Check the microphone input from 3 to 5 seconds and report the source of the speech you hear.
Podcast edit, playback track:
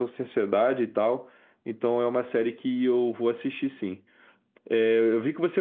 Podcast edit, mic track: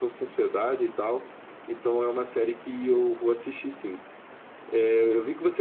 echo only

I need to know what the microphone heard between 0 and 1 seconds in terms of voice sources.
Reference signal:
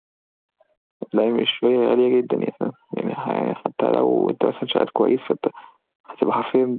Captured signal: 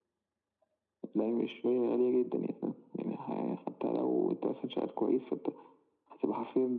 neither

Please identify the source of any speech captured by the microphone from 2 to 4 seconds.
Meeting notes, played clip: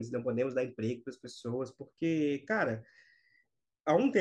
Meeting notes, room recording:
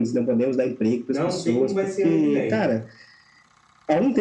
both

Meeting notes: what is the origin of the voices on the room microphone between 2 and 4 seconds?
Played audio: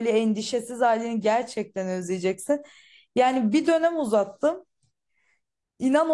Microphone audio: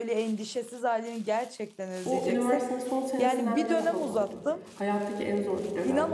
both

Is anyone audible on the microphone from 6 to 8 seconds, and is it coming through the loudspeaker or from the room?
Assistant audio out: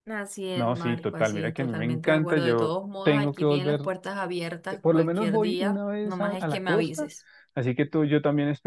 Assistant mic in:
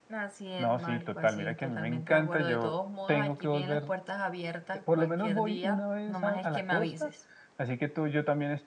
echo only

